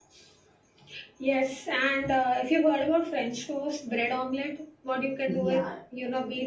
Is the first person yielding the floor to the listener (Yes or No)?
No